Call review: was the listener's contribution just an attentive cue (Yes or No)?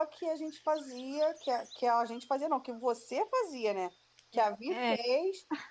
Yes